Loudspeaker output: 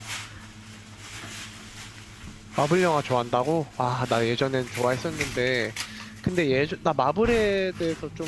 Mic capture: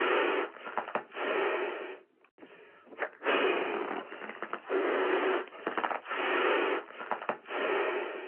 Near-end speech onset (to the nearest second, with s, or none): none